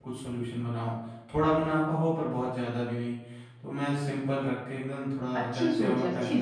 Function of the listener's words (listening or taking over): taking over